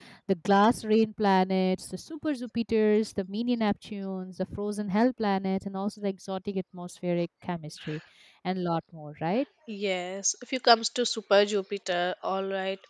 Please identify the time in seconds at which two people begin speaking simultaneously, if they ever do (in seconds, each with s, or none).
none